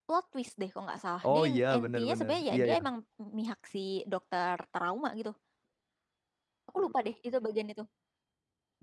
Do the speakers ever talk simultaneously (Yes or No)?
Yes